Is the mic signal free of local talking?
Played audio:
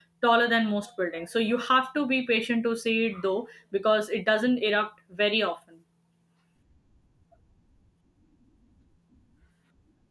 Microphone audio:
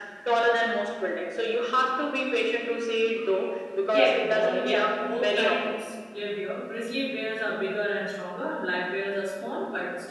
No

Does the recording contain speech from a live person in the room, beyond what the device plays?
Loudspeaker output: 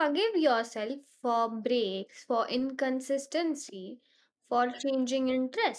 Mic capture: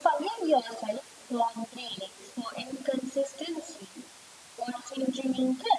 No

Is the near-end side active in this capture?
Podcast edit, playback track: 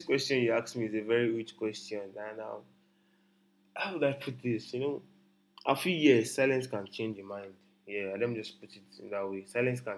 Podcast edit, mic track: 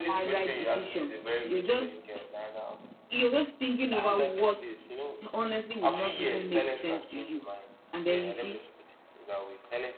Yes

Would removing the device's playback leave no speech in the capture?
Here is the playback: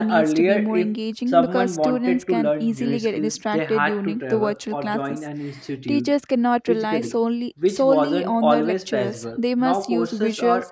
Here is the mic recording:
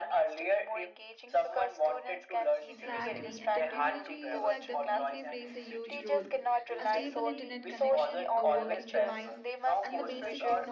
No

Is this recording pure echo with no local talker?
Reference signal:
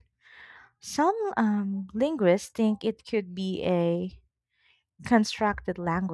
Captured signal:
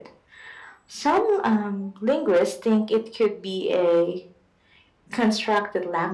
Yes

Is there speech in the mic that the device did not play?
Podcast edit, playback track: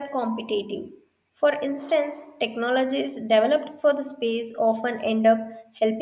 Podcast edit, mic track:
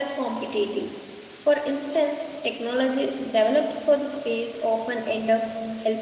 No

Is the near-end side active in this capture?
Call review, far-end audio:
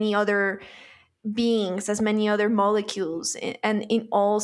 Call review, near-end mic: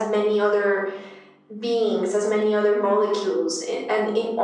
No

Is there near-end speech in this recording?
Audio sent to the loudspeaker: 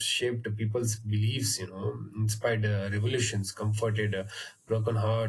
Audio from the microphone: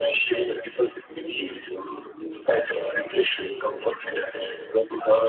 No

